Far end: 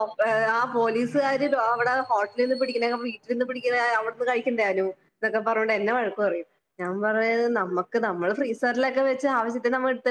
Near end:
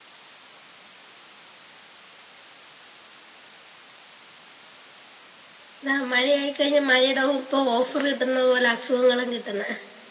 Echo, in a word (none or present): none